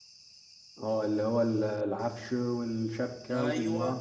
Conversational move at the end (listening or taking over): taking over